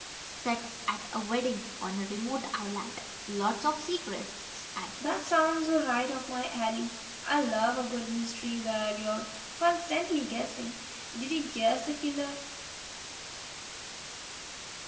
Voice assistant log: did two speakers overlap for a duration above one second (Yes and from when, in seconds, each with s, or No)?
No